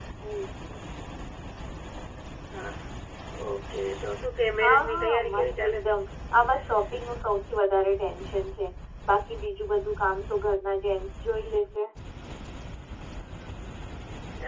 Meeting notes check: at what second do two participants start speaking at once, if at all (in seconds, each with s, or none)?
4.6 s